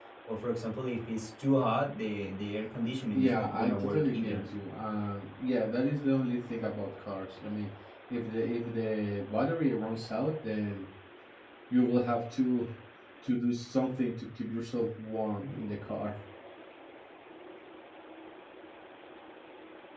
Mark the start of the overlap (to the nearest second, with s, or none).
3 s